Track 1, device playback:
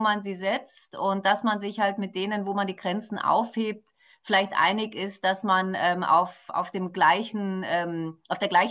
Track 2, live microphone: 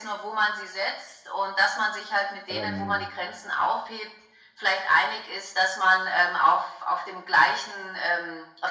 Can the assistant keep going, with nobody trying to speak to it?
No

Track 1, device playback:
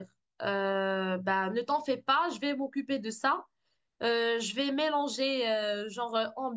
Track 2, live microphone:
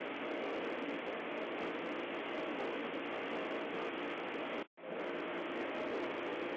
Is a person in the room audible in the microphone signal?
No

